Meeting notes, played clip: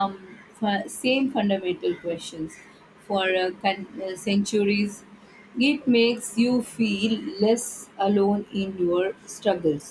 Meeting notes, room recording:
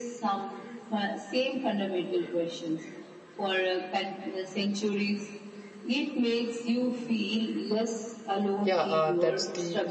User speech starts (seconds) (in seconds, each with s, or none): 8.6 s